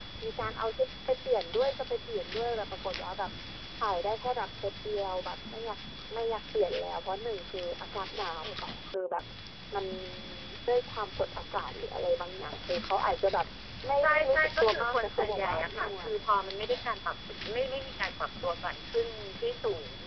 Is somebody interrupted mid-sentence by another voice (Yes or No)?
Yes